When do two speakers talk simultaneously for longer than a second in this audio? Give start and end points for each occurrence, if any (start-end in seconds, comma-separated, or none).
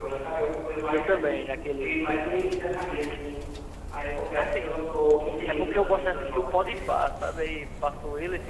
5.5-6.8